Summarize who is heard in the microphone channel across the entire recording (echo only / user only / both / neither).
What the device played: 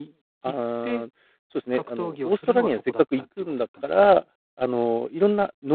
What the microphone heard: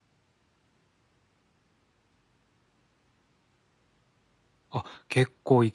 user only